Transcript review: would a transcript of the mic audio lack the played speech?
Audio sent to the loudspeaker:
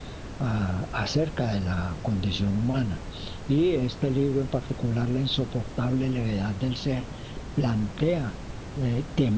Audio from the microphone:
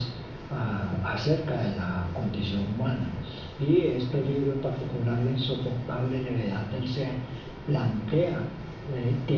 No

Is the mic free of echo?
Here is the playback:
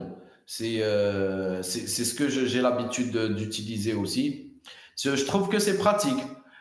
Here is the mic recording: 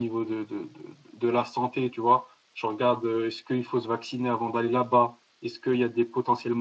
Yes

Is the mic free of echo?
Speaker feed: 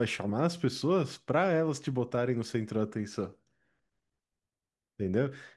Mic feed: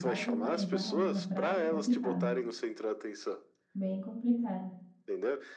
No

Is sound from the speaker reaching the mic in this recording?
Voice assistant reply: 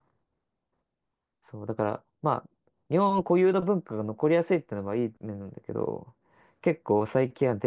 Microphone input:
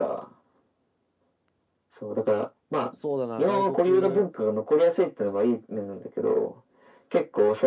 Yes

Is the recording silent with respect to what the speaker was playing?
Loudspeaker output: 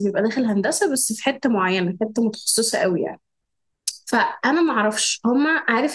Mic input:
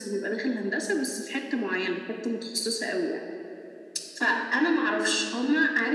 No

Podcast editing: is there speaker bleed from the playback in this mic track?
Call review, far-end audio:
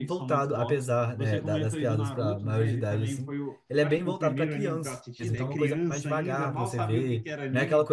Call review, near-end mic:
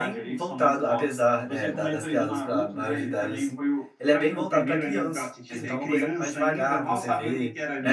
Yes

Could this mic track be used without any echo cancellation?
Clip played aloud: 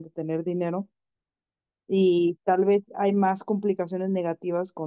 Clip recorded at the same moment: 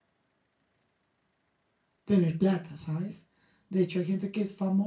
Yes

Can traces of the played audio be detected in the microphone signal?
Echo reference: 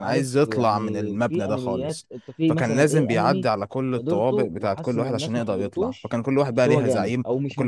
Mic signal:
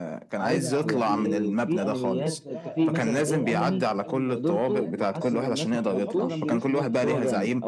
Yes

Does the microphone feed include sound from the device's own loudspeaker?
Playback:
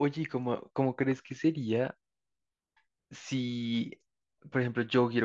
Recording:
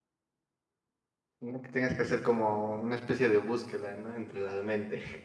No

